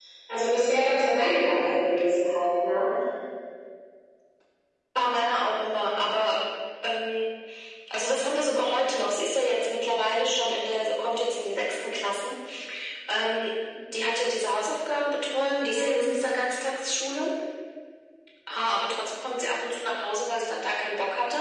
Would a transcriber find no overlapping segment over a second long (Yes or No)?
Yes